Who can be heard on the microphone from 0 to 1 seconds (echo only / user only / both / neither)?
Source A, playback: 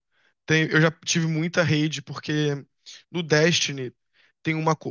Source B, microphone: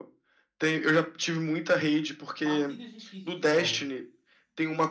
echo only